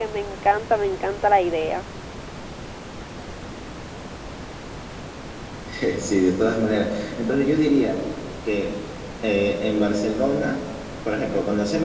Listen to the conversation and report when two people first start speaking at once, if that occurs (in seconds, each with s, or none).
none